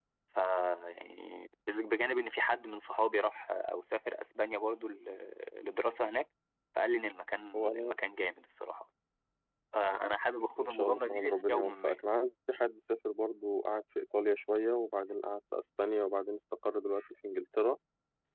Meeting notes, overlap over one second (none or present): present